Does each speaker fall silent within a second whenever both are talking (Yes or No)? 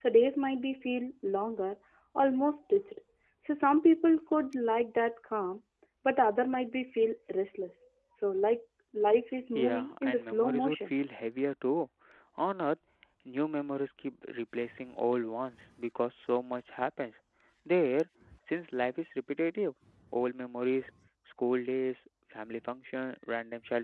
No